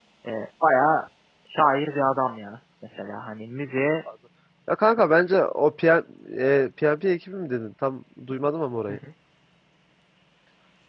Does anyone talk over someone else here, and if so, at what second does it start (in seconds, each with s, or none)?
none